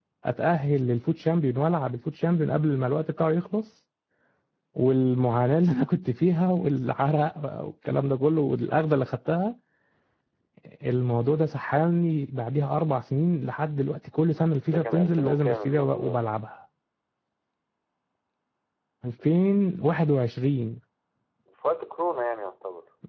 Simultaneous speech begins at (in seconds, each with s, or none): 14.7 s